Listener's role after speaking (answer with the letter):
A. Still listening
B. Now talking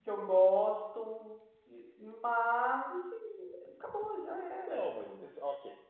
B